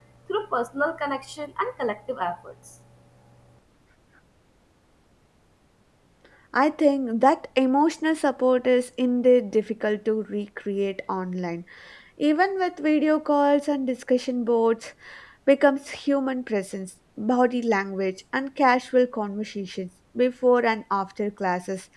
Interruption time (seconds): none

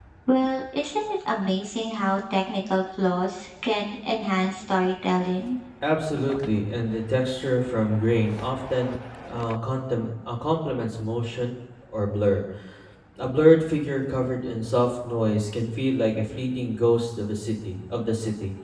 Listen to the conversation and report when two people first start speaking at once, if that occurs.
none

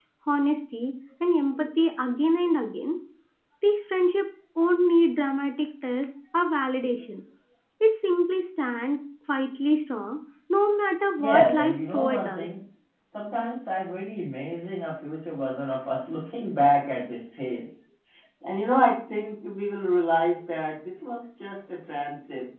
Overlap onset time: 11.2 s

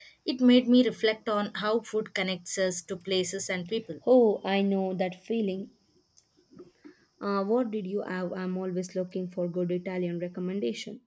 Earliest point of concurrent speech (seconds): none

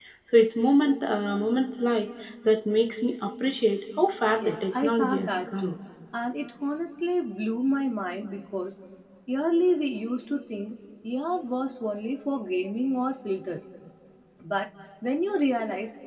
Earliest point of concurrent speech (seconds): 4.4 s

